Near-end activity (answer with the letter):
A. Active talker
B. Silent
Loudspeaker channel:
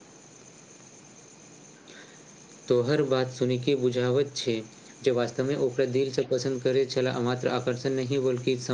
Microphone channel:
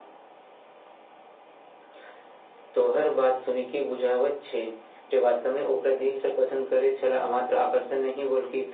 B